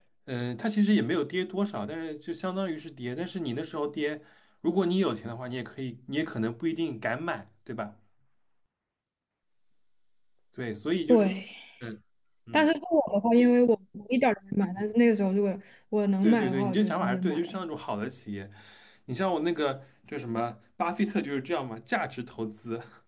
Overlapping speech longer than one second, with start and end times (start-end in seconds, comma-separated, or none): 16.2-17.6